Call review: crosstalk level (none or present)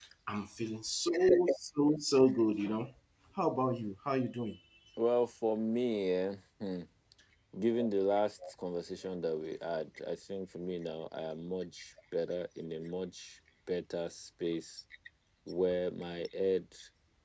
none